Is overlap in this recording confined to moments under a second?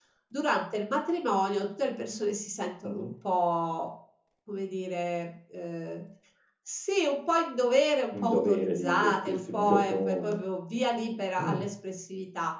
No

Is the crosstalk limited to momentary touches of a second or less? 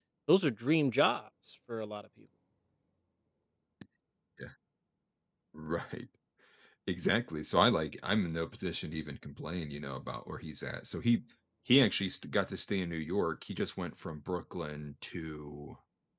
Yes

